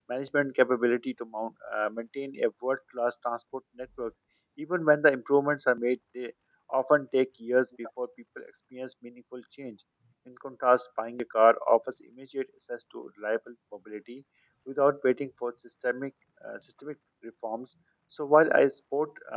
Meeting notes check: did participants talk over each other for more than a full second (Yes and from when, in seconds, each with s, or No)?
No